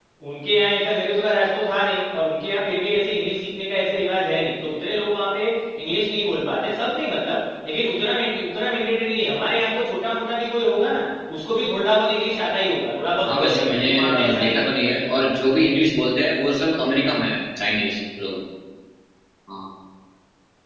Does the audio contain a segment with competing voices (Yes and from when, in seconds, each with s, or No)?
Yes, from 13.3 s